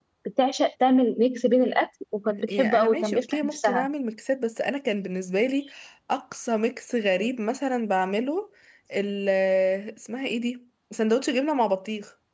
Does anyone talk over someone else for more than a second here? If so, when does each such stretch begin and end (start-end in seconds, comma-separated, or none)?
2.2-3.9